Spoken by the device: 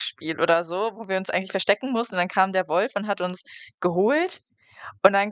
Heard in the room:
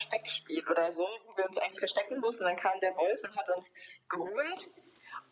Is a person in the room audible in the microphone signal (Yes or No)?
No